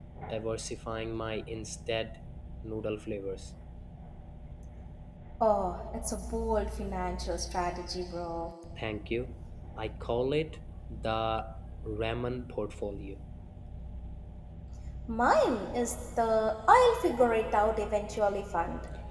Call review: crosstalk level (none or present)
none